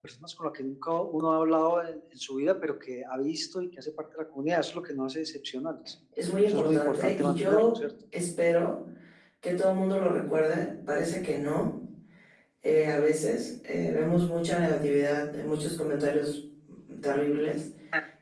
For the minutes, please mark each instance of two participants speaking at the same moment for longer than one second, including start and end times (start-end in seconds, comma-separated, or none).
6.4-7.8